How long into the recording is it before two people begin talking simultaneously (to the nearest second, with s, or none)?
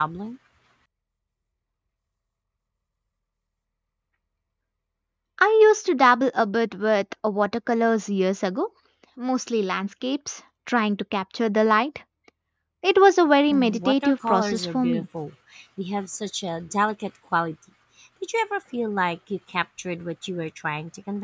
14 s